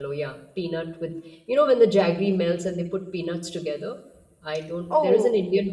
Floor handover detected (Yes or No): No